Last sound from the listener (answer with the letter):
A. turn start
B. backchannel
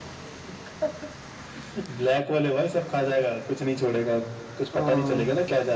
B